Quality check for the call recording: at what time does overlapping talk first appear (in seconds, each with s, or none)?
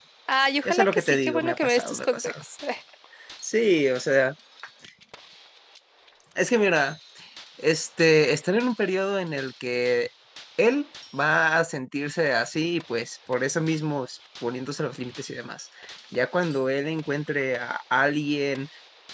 0.6 s